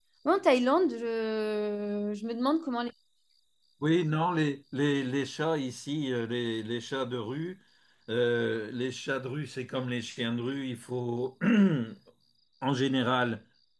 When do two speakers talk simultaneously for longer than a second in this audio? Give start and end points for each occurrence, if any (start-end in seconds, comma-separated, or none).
none